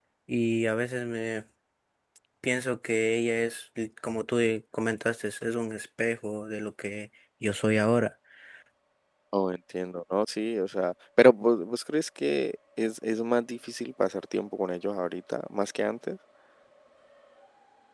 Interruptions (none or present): none